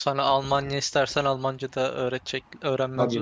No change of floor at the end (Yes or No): No